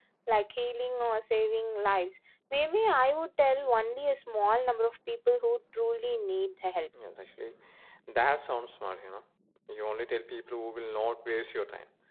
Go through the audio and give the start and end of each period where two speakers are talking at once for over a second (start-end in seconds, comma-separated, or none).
none